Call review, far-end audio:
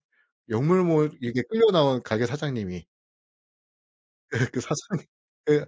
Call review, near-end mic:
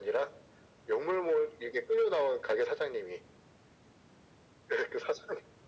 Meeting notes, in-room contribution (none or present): none